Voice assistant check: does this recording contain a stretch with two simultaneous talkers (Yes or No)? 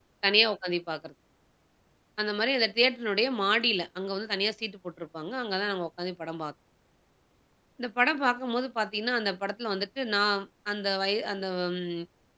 No